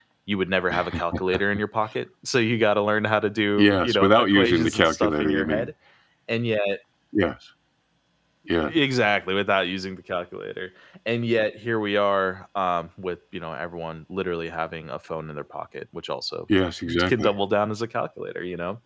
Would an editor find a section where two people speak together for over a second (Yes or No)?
Yes